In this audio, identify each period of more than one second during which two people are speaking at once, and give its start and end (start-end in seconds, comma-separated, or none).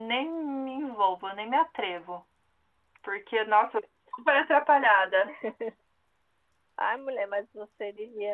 none